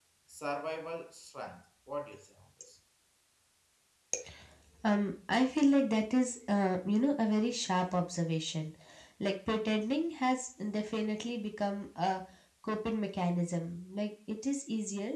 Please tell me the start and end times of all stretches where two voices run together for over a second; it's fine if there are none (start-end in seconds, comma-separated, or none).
none